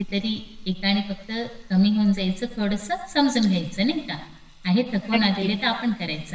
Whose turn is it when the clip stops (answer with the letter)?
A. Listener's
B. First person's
B